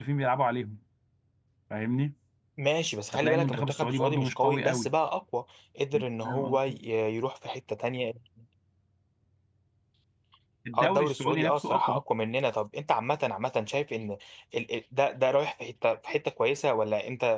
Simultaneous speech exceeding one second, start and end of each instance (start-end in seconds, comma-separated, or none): 3.1-4.9, 10.8-12.0